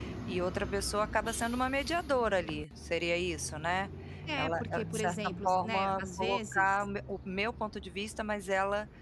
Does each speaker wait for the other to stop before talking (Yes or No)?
No